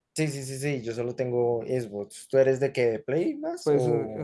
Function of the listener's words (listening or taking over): taking over